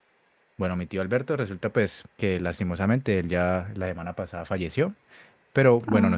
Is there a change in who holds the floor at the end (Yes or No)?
No